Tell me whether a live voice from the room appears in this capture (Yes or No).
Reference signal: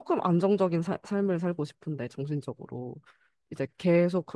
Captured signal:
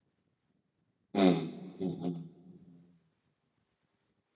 Yes